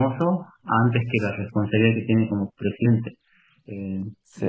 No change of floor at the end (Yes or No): Yes